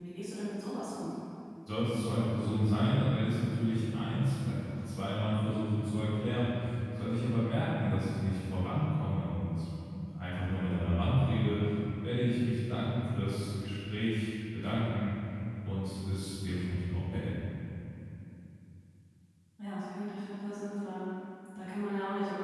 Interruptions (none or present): none